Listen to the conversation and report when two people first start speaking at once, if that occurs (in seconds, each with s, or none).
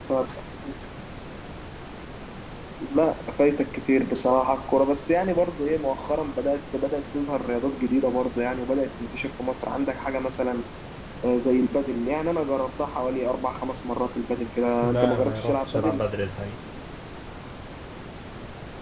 14.8 s